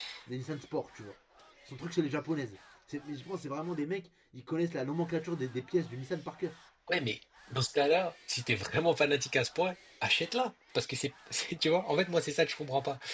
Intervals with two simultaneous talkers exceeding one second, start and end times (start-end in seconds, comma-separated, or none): none